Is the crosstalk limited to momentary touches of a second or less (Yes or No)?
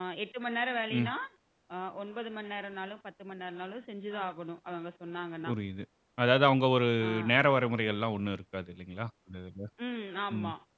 Yes